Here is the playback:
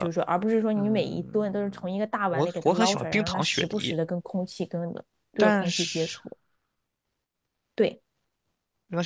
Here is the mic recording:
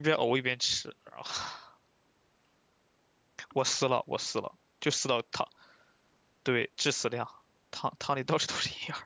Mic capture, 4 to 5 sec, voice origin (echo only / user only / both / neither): user only